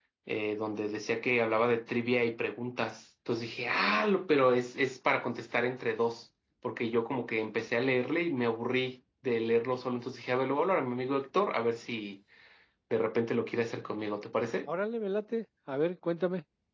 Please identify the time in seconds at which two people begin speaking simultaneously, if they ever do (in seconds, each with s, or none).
none